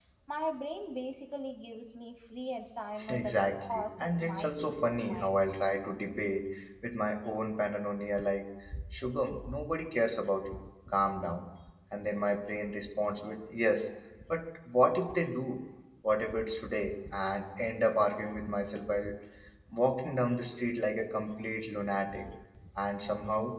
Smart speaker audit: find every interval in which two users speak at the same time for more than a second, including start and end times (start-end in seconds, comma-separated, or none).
3.1-5.3